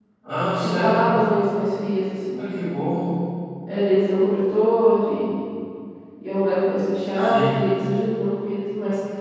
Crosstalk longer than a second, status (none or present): none